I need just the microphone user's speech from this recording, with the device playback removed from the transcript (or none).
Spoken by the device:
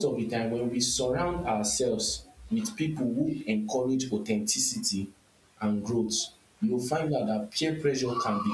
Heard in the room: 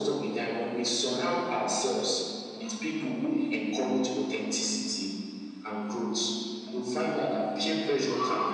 none